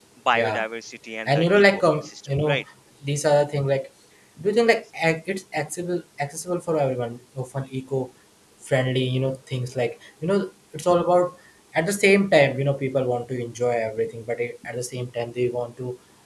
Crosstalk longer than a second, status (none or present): present